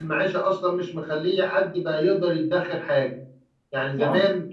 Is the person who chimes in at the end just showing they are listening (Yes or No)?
Yes